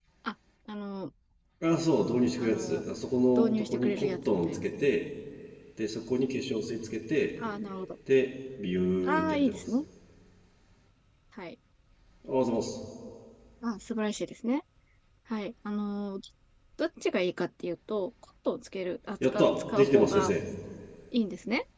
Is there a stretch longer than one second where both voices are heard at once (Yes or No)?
Yes